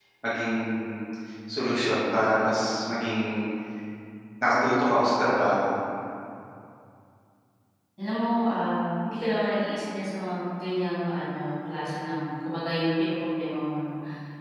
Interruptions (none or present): none